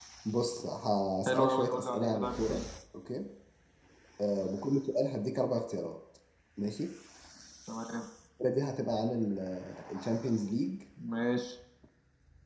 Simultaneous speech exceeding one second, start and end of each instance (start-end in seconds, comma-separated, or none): 1.3-2.6